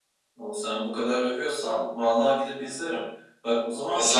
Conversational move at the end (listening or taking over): listening